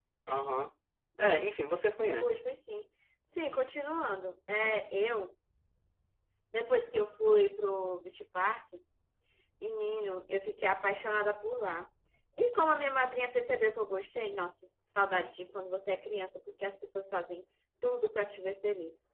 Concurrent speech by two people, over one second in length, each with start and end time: none

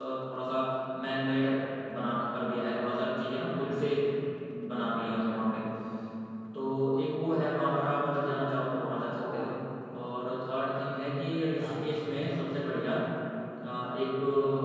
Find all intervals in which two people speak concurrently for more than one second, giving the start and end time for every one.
none

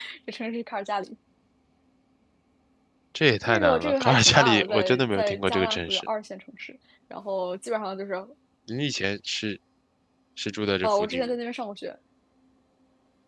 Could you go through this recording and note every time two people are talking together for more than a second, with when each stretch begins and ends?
3.5-6.1

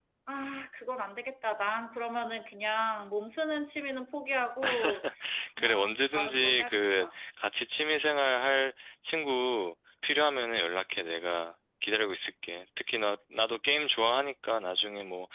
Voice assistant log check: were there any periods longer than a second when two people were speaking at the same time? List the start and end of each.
5.6-7.2

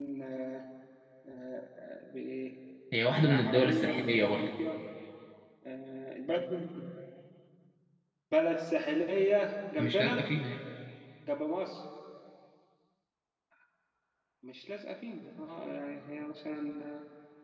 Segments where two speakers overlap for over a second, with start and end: 3.0-4.5

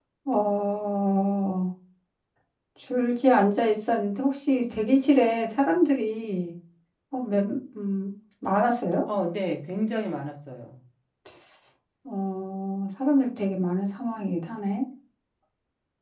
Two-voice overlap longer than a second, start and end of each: none

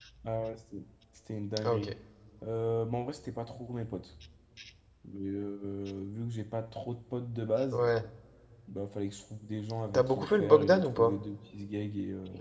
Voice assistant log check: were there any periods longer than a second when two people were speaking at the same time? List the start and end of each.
9.9-11.2

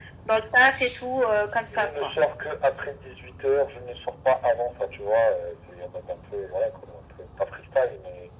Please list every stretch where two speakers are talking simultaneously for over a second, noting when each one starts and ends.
none

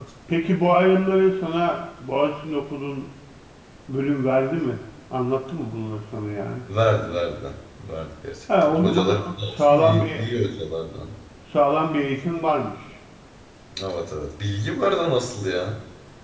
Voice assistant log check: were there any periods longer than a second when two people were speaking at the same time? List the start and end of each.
8.6-10.2

